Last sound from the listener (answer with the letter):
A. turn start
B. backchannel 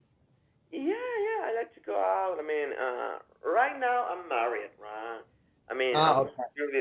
B